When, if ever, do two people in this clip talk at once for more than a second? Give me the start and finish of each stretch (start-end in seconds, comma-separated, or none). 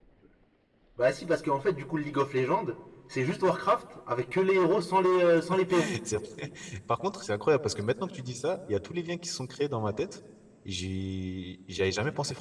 none